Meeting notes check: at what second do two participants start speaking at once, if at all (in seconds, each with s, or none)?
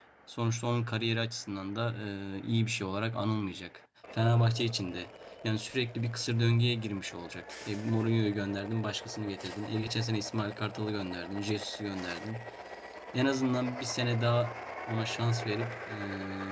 none